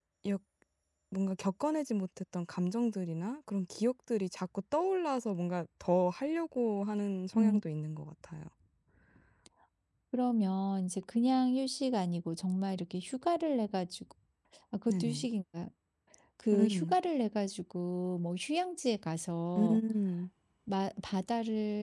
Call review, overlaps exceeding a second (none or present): none